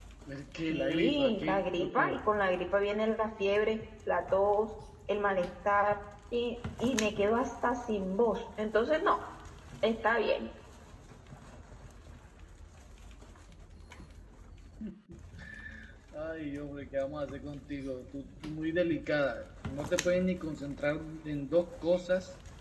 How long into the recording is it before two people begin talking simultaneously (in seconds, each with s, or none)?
0.7 s